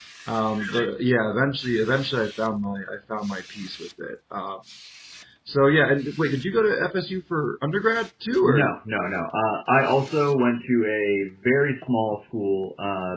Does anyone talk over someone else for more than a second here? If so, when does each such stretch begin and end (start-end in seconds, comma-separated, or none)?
none